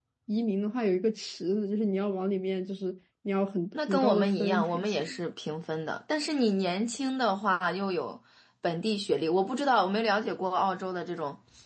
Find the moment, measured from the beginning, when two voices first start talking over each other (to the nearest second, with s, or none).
4 s